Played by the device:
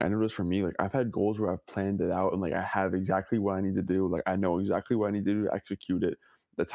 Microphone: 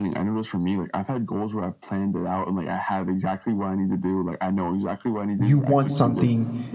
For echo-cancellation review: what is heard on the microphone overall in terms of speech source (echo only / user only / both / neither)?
both